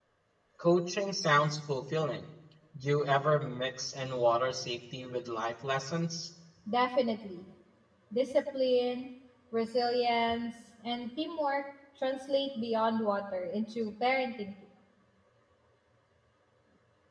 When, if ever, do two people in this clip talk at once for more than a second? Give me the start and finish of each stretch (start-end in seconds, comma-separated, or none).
none